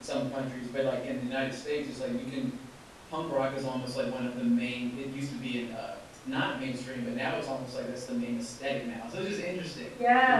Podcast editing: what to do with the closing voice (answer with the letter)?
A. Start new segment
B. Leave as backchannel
A